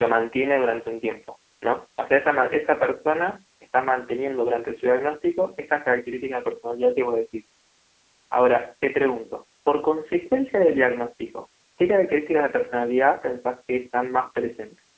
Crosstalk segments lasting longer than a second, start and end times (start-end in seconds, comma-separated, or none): none